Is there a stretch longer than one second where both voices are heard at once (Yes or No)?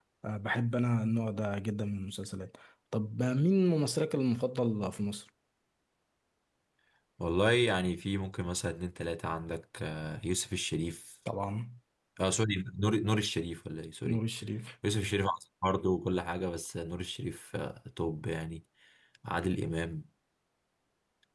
No